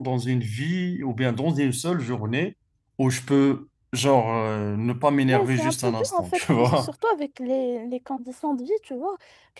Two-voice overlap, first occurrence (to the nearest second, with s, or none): 5 s